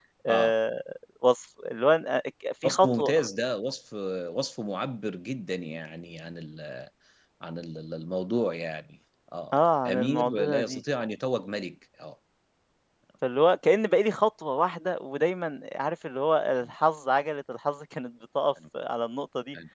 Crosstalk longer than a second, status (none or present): present